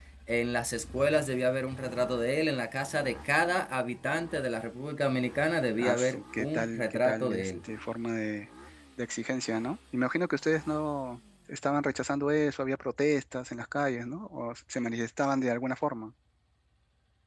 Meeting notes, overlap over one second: present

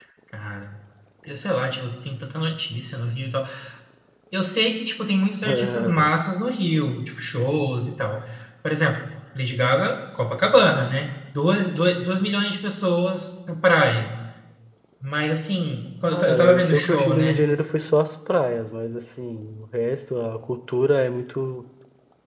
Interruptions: present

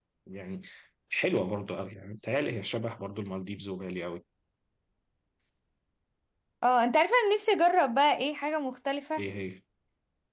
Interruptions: none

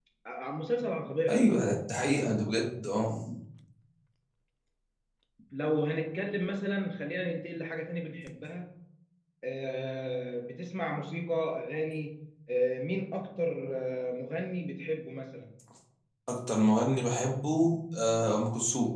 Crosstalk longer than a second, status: none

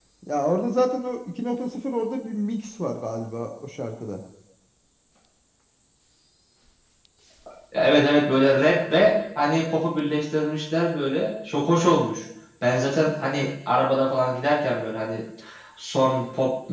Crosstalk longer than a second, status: none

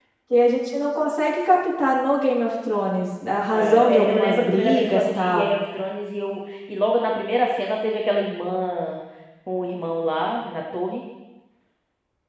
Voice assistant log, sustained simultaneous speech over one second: present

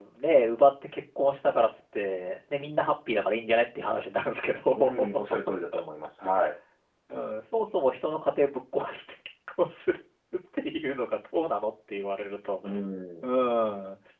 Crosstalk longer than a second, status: none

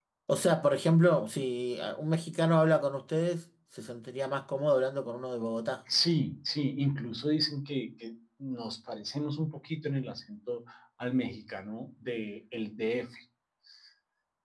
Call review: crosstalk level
none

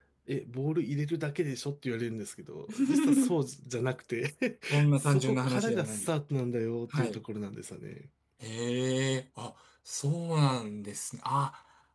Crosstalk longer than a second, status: present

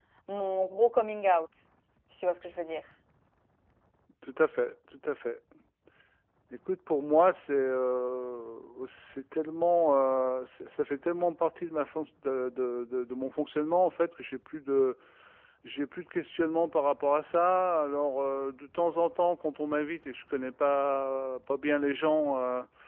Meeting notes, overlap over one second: none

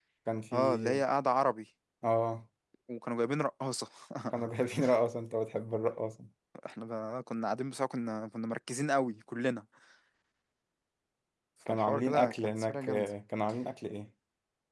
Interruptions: present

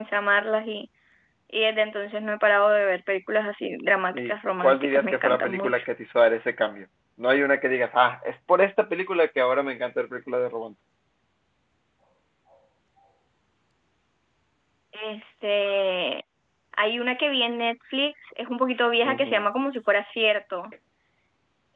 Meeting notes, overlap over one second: present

